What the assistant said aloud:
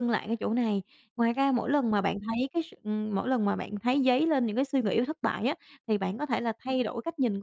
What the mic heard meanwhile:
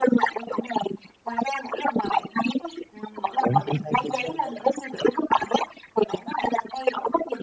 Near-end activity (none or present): present